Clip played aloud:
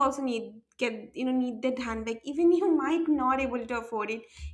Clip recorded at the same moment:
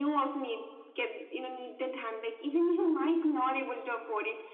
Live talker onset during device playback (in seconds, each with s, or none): none